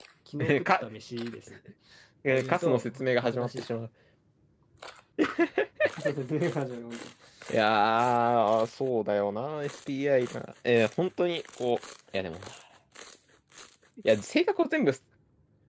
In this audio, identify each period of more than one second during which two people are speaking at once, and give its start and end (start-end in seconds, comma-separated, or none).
2.3-3.6